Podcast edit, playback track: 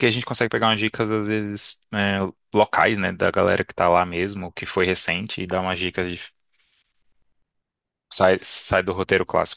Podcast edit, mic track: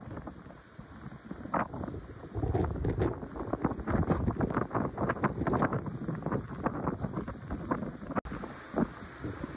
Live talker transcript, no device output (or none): none